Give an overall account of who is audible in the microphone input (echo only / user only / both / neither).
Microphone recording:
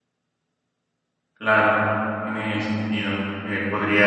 user only